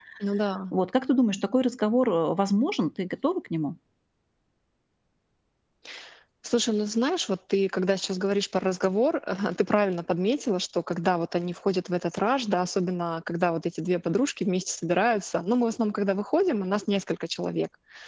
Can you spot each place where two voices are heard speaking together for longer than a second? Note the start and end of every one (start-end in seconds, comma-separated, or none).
none